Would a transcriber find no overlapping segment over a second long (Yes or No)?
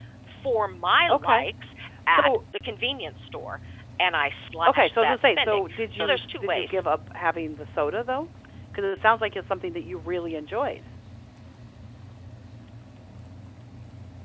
No